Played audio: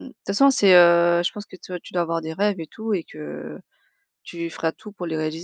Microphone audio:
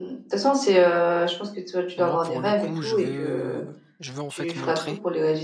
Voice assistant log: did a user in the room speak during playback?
Yes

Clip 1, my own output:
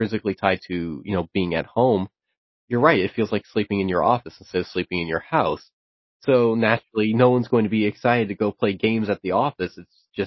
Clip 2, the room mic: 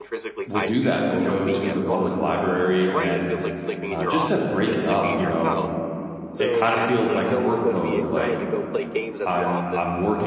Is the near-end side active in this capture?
Yes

